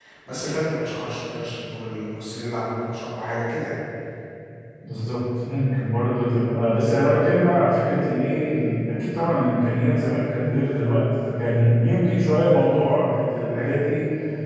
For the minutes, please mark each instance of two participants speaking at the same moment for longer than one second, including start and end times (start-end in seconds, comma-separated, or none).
none